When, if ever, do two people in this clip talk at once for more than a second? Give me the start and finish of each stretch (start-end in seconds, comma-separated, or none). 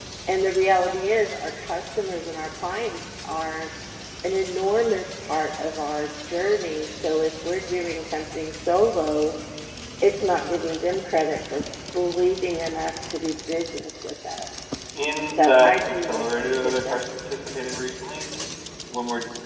15.3-17.0